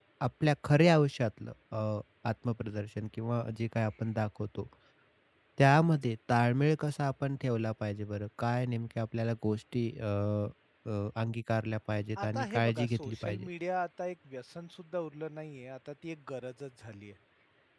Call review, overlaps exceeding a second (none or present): present